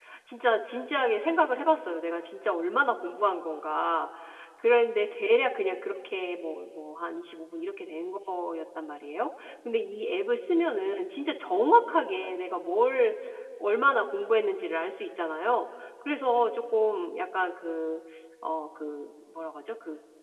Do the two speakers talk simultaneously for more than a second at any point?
No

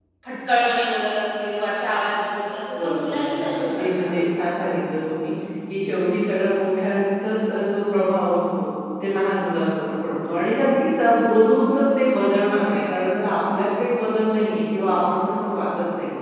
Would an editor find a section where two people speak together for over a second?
Yes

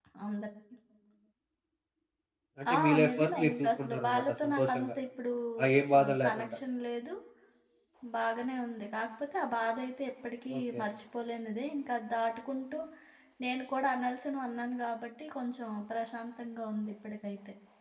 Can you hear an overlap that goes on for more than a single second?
Yes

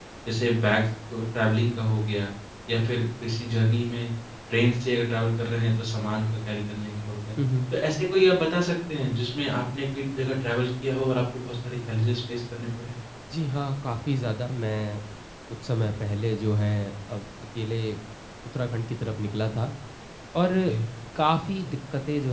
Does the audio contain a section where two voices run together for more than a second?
No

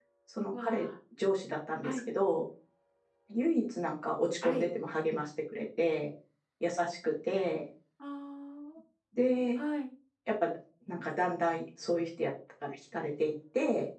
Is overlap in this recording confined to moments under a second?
Yes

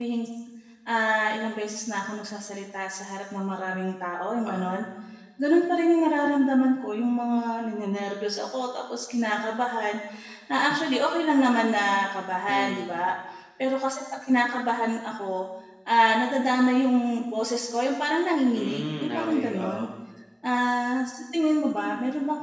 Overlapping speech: Yes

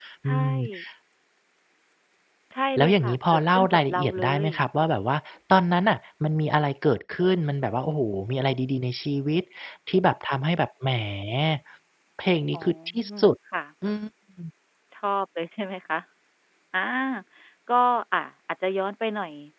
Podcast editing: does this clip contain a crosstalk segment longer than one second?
Yes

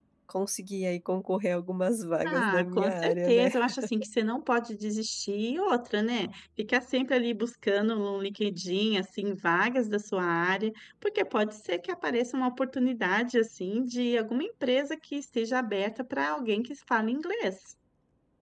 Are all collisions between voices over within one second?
No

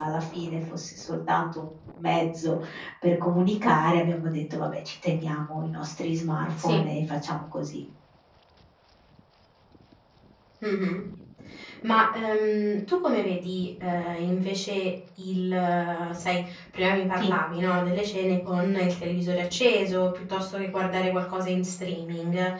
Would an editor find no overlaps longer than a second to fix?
Yes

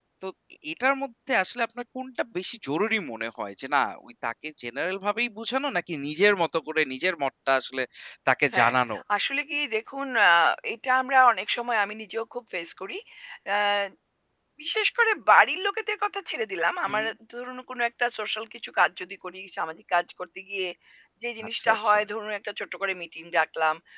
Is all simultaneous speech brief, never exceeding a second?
Yes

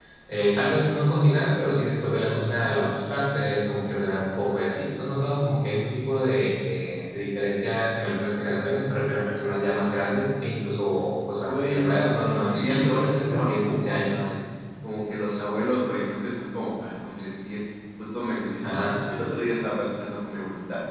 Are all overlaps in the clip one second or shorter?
No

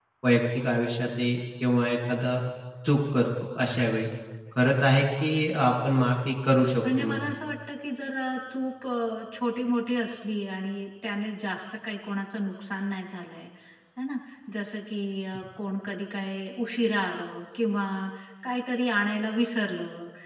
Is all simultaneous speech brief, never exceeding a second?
Yes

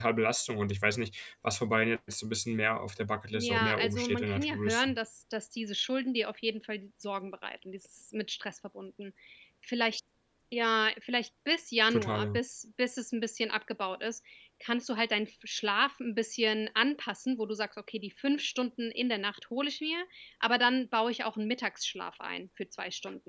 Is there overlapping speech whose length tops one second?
Yes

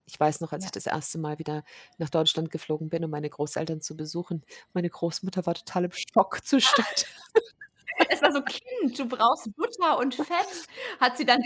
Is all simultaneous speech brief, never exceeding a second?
Yes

